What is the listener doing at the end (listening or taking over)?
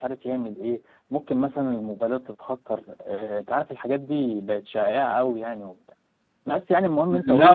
taking over